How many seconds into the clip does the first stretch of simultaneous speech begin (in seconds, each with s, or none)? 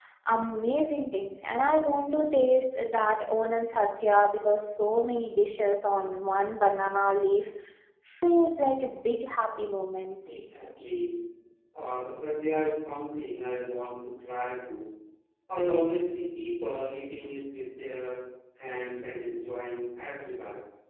none